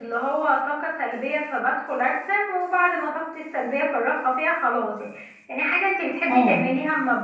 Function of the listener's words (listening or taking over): listening